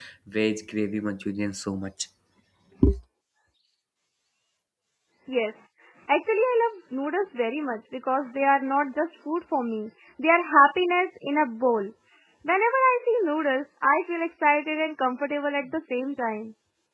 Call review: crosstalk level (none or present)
none